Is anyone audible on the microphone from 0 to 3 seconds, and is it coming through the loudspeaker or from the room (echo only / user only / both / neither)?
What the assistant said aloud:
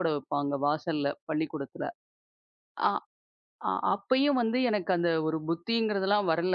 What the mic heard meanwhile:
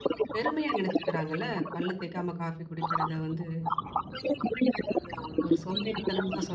both